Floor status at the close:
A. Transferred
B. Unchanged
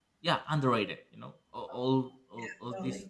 B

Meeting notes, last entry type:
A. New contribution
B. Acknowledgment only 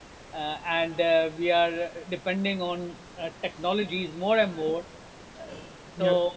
B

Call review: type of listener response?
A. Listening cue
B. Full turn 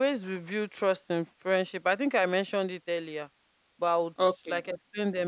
A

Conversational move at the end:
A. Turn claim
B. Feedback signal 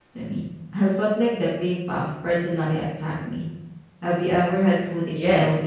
A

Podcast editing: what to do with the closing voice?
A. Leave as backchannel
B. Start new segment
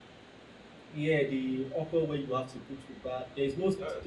A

